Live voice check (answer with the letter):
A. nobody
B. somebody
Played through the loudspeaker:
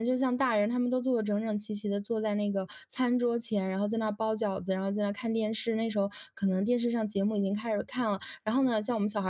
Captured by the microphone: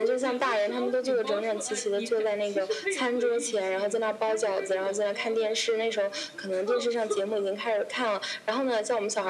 B